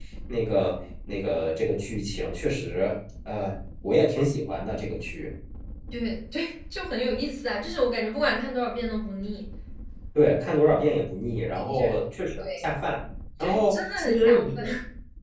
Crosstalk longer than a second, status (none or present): present